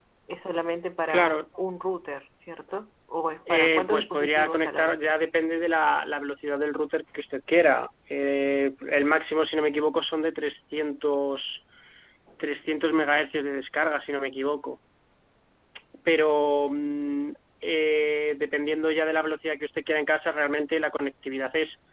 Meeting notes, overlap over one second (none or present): present